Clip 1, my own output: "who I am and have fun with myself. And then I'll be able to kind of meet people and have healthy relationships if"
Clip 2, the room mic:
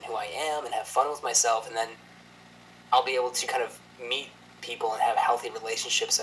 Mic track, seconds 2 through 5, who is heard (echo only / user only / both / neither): echo only